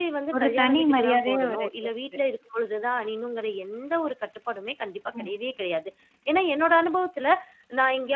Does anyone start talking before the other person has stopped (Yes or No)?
Yes